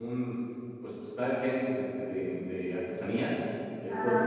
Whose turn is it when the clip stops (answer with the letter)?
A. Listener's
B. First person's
B